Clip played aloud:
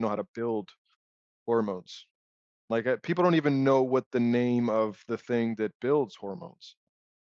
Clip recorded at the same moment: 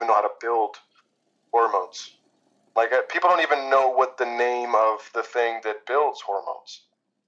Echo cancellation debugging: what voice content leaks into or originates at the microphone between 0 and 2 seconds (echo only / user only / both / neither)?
echo only